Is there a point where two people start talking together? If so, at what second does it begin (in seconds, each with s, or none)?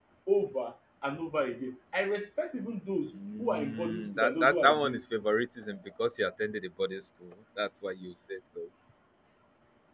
3.1 s